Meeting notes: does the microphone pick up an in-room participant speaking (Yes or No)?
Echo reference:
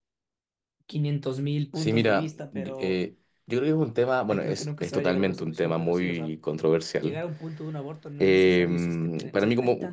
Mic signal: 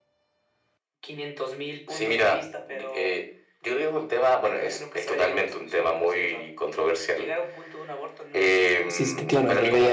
Yes